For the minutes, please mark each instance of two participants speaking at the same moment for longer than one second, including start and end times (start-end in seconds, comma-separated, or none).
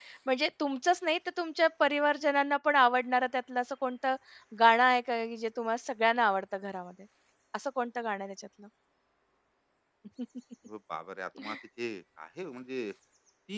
none